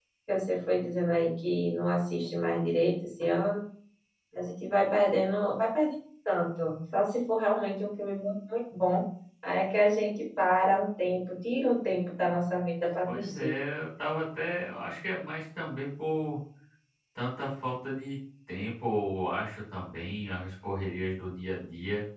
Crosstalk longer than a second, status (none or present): none